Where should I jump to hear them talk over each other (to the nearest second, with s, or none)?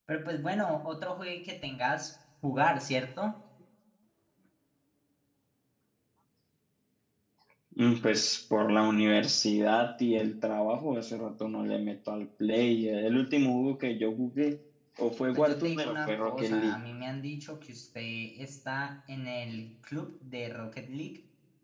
15 s